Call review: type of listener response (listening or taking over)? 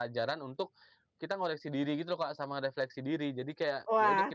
taking over